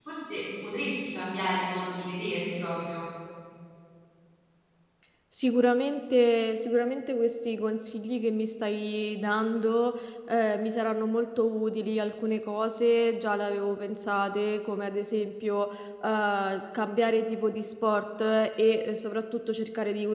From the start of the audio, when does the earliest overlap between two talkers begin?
none

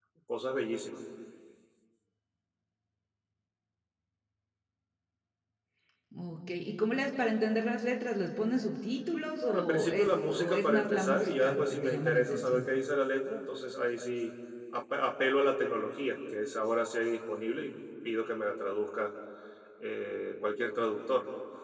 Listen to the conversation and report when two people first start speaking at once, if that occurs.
9.4 s

